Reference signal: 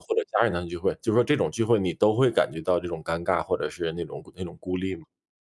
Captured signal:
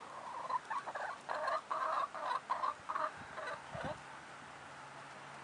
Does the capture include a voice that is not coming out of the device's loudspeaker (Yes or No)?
No